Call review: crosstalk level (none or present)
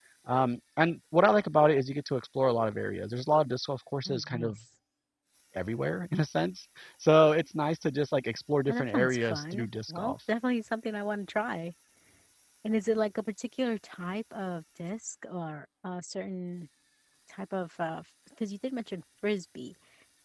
present